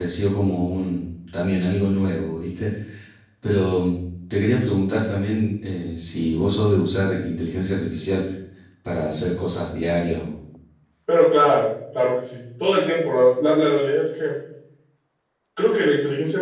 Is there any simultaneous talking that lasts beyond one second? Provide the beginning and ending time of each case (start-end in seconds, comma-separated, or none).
none